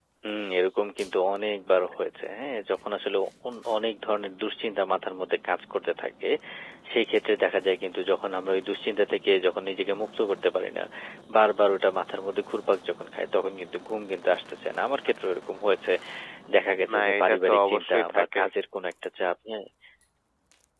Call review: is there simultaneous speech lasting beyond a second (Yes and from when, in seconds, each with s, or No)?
Yes, from 16.9 s